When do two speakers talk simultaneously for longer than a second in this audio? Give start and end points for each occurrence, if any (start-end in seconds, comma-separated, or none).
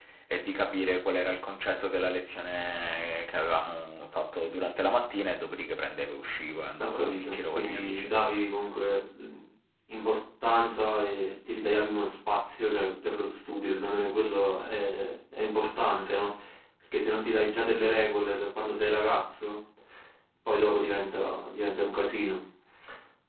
6.8-8.1